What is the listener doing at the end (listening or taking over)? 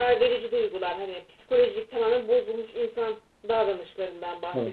listening